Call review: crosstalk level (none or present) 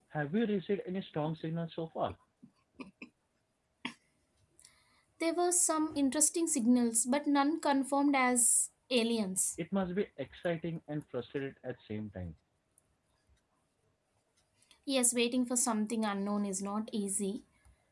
none